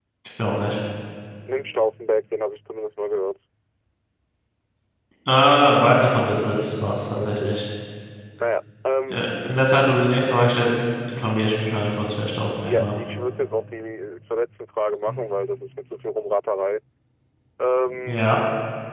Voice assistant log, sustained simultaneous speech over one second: none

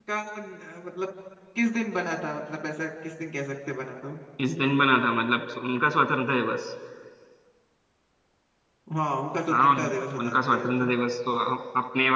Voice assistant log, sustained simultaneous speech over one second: present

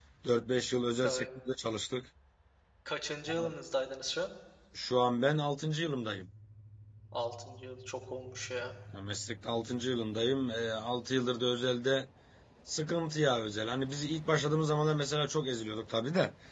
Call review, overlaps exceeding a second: none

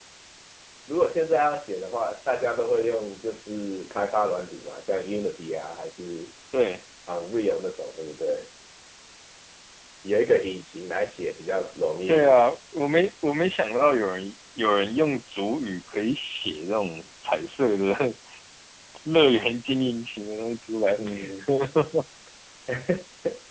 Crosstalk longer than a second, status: none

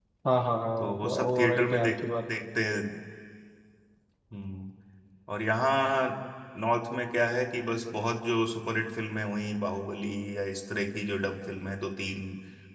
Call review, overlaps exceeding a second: present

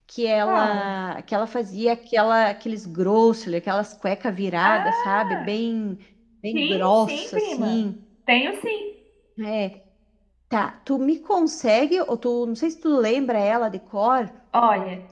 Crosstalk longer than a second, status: present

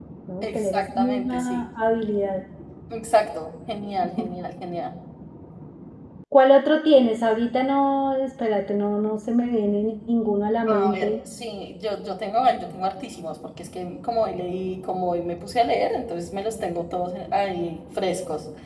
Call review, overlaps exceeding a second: present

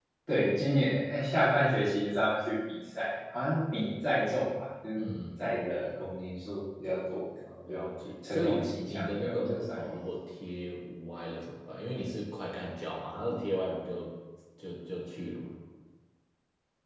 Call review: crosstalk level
present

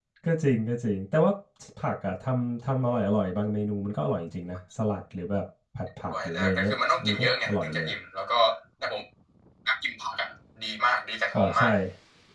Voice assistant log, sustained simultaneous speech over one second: present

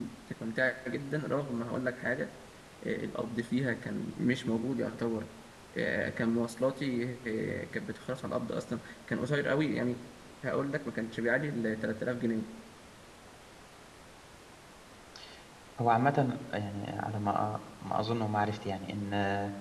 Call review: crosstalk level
none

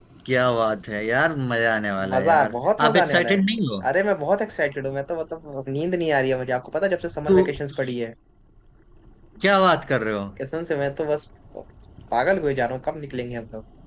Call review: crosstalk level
present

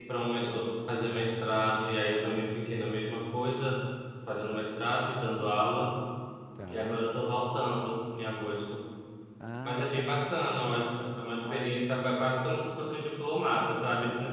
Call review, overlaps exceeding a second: none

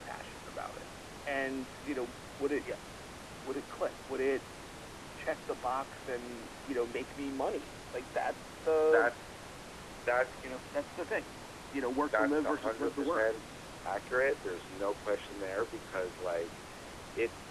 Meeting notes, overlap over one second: present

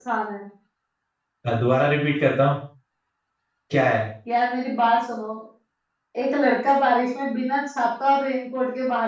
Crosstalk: none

